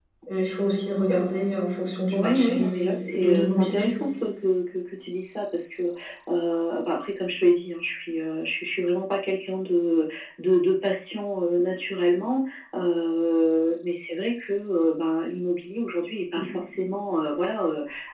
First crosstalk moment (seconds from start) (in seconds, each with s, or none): 2.1 s